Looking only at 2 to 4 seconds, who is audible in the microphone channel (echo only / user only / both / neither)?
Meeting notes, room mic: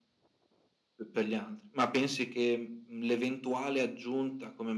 echo only